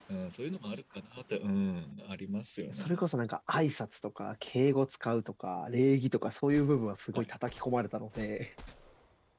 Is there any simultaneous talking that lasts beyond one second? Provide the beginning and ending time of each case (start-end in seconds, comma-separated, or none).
none